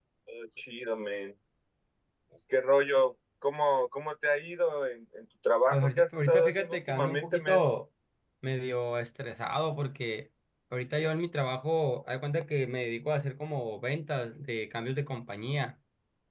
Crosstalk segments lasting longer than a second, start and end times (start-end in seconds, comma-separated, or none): 5.7-7.6